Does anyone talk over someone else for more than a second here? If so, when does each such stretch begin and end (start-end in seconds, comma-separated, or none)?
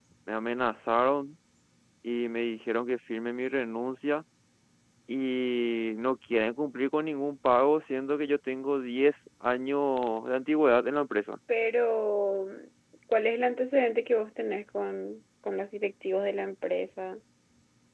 none